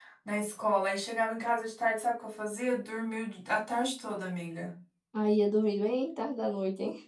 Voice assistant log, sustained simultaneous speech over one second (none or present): none